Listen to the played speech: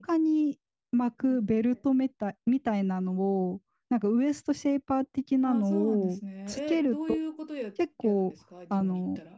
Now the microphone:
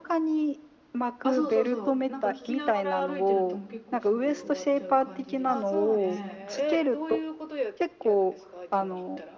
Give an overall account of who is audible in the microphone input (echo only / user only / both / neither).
both